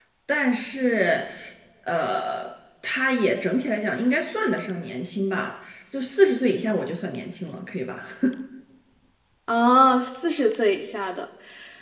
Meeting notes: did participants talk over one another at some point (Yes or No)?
No